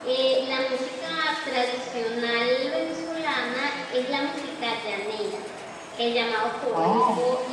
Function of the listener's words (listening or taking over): listening